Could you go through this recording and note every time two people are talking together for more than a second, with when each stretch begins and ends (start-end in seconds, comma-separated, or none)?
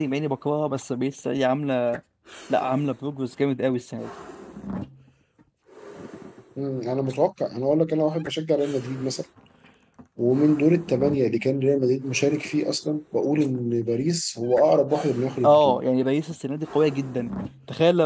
none